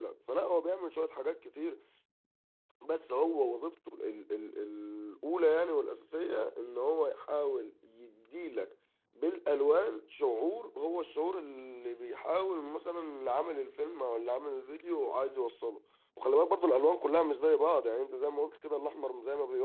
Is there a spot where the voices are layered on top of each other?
No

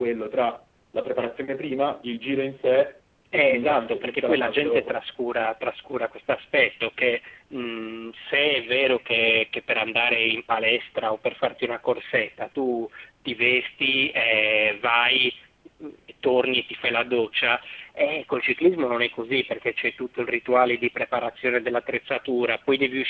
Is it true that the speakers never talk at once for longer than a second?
No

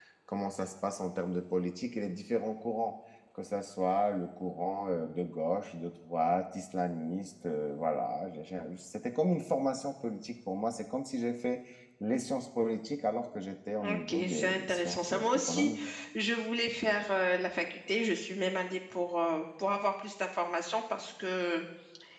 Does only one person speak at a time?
No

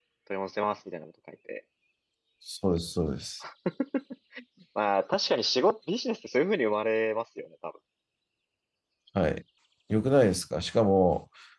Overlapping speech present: No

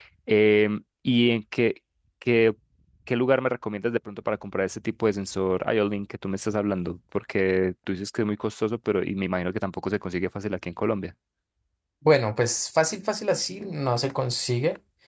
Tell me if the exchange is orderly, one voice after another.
Yes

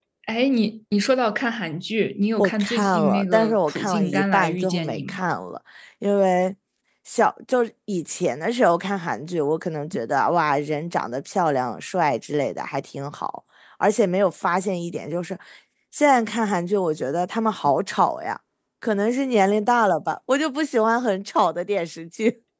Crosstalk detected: Yes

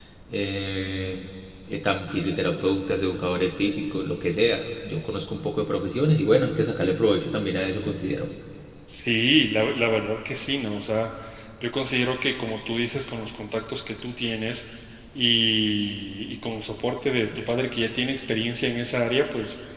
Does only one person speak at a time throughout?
Yes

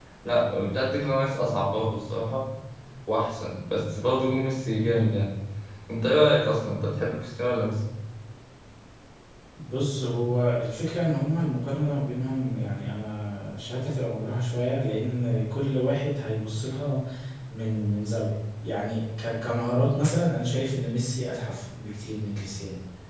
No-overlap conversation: Yes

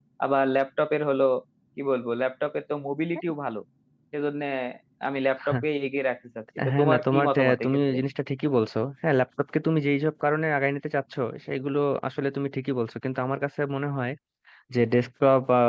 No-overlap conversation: No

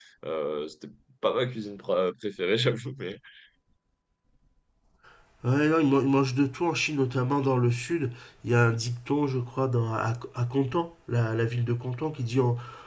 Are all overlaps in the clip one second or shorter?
Yes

